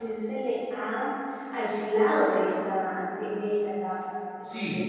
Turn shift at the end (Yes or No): Yes